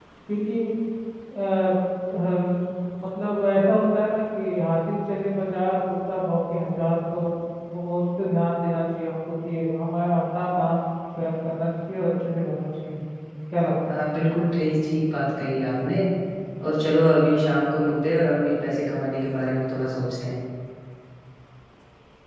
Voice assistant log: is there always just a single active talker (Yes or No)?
Yes